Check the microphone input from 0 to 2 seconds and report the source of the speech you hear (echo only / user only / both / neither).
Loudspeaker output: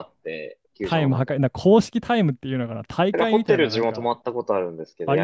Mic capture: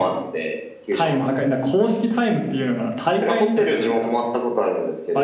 echo only